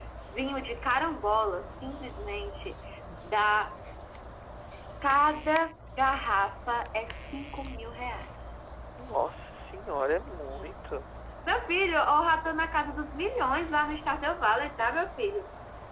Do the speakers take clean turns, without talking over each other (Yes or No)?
Yes